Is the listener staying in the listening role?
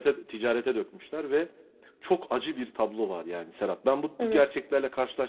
Yes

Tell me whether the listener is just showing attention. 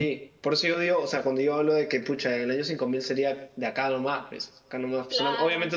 Yes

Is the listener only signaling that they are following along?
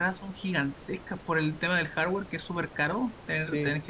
Yes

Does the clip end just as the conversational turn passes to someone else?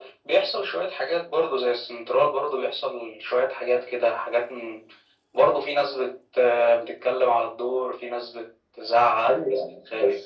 Yes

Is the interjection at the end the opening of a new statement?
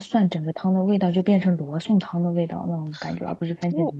Yes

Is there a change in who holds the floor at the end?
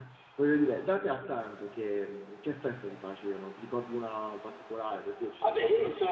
Yes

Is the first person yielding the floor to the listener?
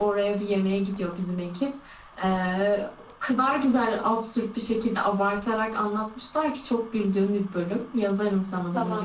Yes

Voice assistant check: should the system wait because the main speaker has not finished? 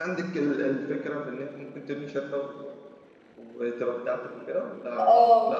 No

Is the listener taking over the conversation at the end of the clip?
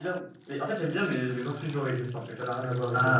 Yes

